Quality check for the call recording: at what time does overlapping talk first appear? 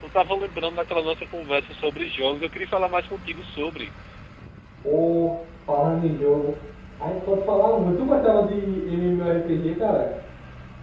none

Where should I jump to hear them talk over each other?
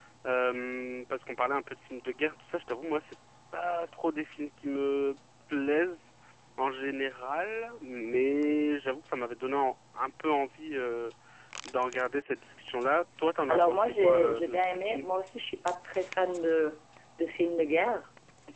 13 s

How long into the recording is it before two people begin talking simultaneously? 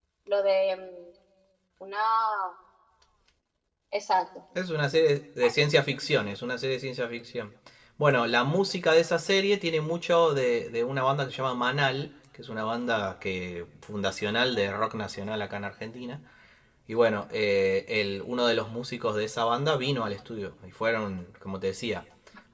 none

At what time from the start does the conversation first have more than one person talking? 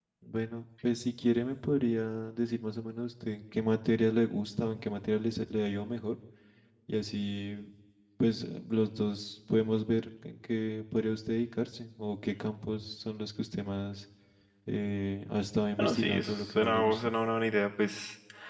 16 s

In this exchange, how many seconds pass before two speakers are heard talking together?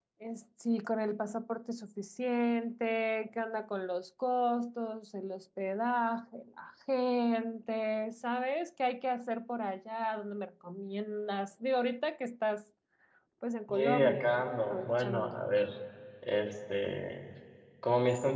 14 s

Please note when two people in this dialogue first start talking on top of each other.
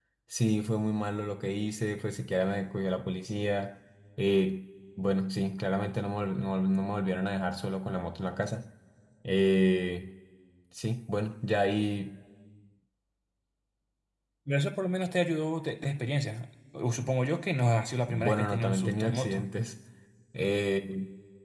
18 s

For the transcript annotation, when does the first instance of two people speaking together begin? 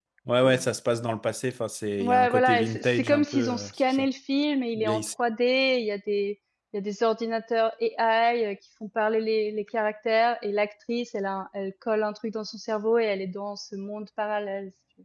2 s

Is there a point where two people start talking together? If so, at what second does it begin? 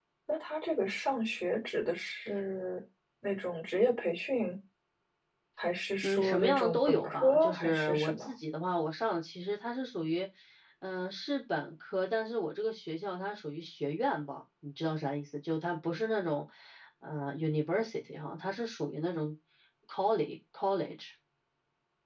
6 s

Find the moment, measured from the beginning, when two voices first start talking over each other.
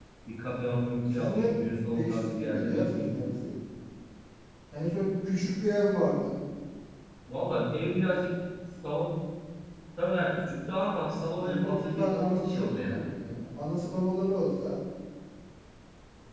1 s

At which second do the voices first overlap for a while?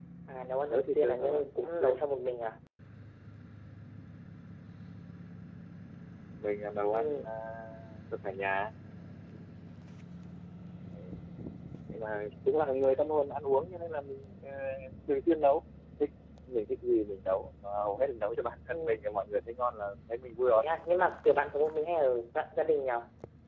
1 s

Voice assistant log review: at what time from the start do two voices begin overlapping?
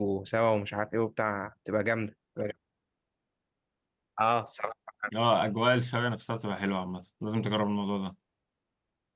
none

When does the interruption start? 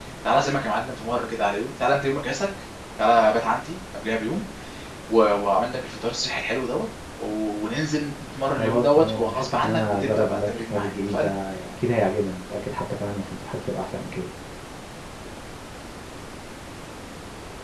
9 s

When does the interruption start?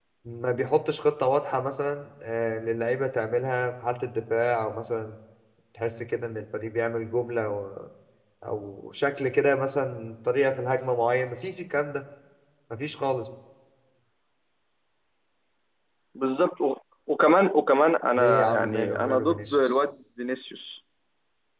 18 s

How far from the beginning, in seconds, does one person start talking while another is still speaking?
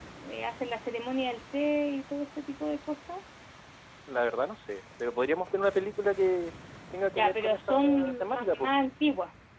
7 s

